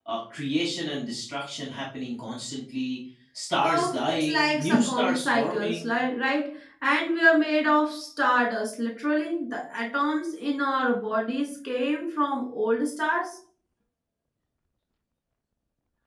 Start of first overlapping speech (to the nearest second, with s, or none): 4 s